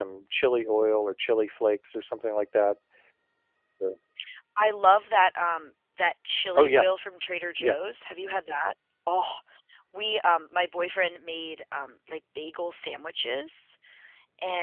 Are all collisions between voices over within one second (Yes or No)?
Yes